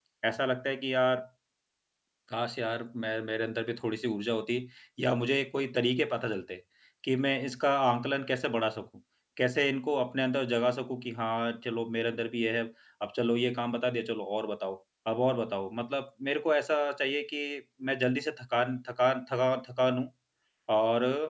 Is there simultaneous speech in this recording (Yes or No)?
No